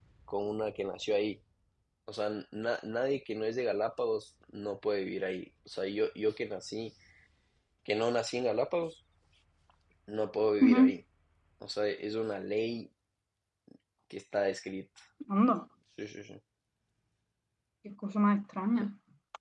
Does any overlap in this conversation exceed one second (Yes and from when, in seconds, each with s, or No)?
No